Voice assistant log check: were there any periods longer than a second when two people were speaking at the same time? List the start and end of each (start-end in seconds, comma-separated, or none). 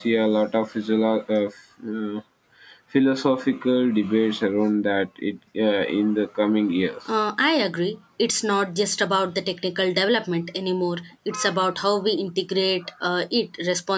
none